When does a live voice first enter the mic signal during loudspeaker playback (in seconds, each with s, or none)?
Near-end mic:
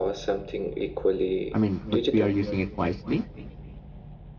1.5 s